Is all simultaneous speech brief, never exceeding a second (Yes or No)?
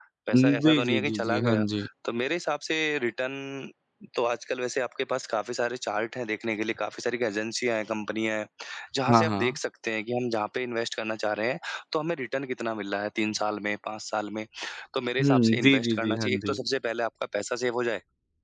No